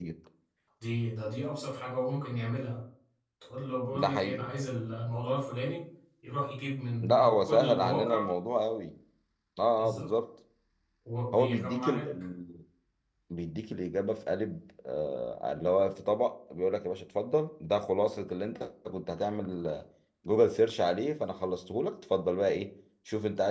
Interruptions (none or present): present